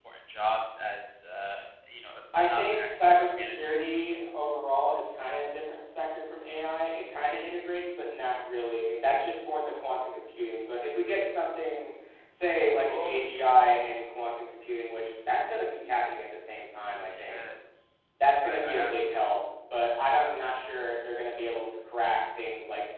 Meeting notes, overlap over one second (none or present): present